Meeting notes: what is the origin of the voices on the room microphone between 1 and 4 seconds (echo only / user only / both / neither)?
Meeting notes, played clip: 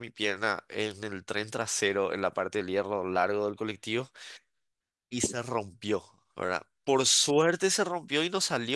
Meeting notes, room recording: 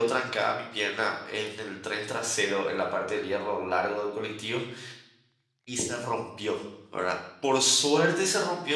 echo only